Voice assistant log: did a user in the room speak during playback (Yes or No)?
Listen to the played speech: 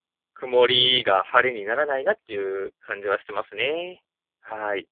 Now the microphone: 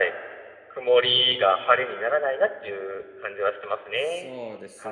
Yes